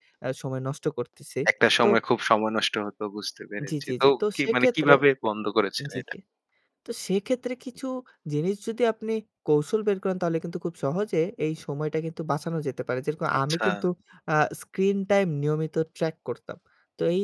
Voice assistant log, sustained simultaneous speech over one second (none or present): present